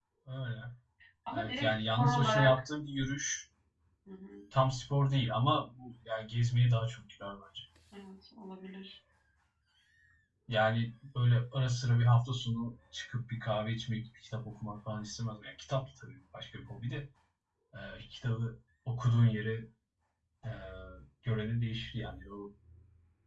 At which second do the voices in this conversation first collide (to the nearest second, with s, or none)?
1 s